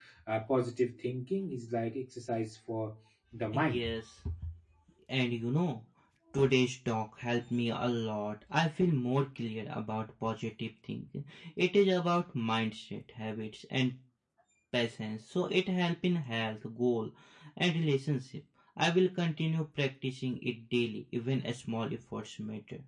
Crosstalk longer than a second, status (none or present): none